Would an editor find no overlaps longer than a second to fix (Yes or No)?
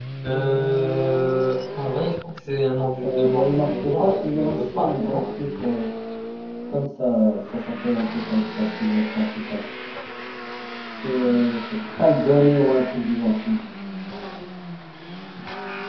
No